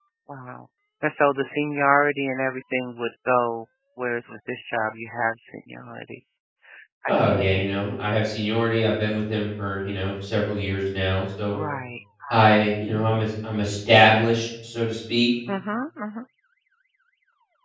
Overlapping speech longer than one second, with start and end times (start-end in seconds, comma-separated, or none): none